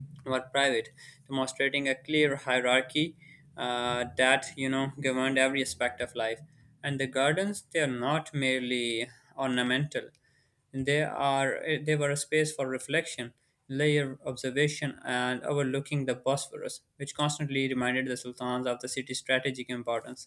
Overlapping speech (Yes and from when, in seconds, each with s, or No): No